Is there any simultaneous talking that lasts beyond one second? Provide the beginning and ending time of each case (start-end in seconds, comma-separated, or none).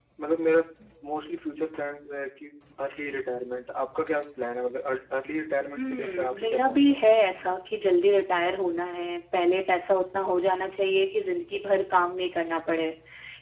5.8-7.0